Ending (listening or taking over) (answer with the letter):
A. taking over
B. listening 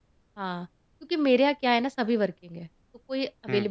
B